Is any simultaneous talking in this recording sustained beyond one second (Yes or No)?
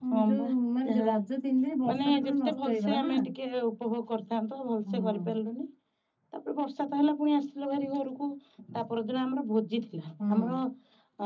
Yes